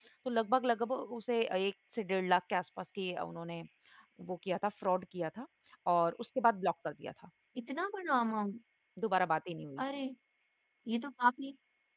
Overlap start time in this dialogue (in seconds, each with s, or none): none